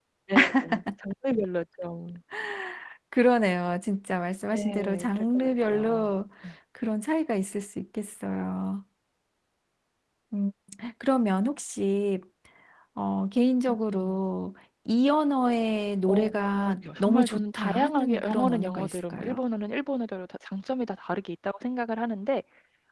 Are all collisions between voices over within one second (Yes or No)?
No